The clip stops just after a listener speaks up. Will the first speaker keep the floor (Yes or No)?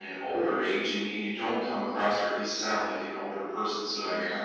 Yes